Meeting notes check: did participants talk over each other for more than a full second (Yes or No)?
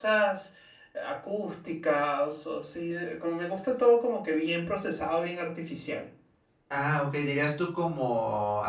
No